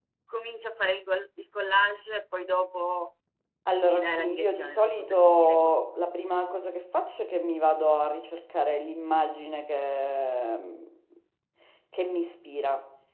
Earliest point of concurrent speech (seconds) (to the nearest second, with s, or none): 4 s